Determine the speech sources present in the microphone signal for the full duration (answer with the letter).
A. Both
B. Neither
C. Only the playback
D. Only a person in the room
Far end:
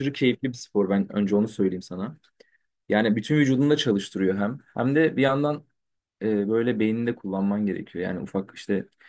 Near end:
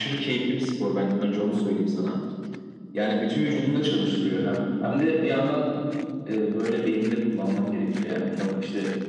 C